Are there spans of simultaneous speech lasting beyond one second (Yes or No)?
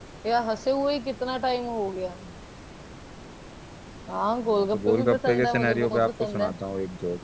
Yes